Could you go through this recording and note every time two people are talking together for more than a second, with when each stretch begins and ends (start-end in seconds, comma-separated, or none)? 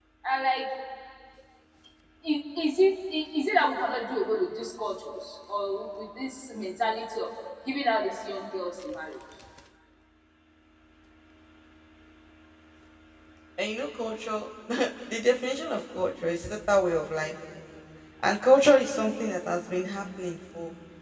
none